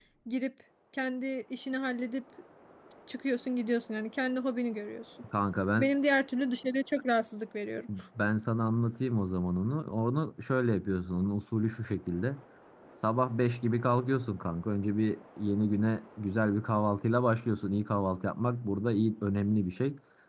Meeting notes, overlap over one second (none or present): none